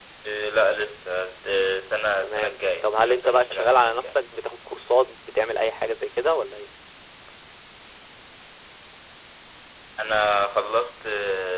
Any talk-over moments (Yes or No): Yes